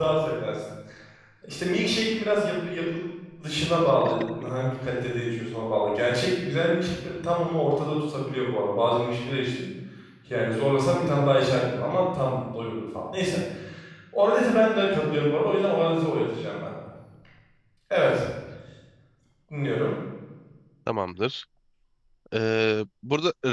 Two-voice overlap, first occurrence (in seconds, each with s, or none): none